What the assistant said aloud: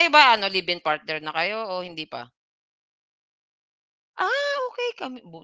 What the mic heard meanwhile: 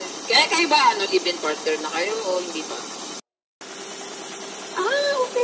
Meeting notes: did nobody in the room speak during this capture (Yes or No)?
Yes